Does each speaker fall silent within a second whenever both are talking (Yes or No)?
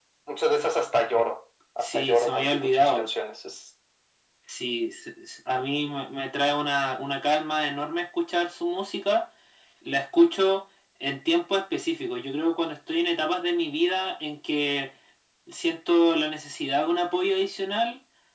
No